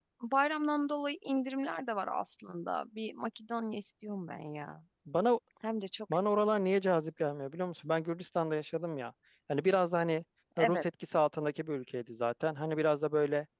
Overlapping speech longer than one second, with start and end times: none

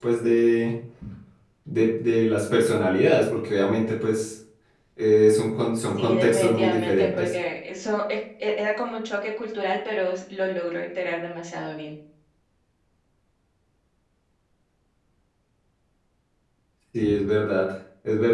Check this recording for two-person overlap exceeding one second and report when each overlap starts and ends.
6.0-7.3

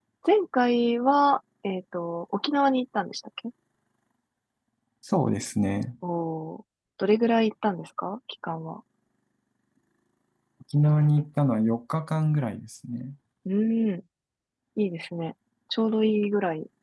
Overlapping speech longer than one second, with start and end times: none

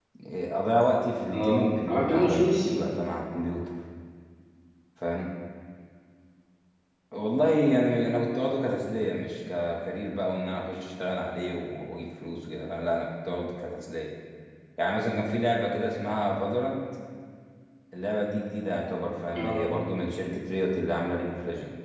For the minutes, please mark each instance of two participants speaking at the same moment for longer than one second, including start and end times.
1.3-2.7

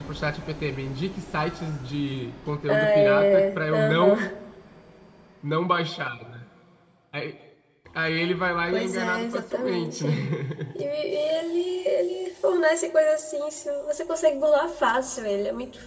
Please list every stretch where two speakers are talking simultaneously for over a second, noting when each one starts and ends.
2.7-4.3, 8.7-10.0

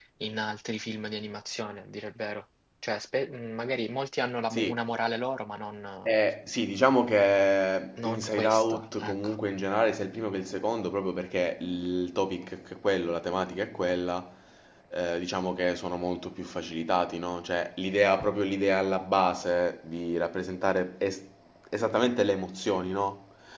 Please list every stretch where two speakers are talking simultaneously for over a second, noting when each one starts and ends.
8.0-9.3

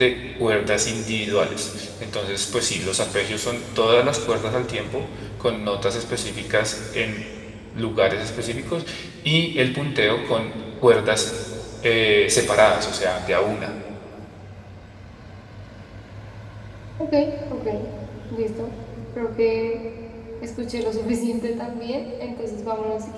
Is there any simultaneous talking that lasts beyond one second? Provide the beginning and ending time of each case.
none

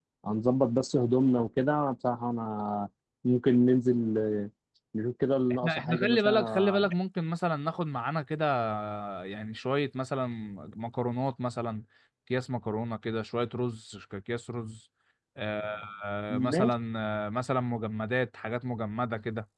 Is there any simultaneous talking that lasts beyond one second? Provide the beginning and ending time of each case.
5.5-6.9

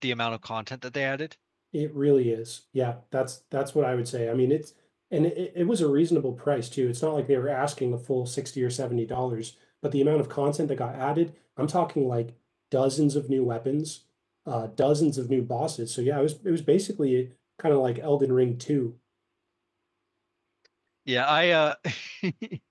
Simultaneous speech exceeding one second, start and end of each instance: none

